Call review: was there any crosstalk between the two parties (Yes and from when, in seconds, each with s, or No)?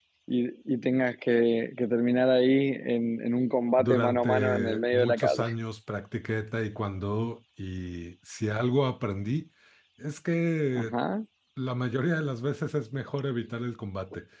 Yes, from 3.8 s